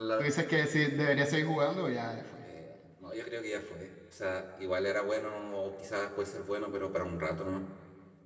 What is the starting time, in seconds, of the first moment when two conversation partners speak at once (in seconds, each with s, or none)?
none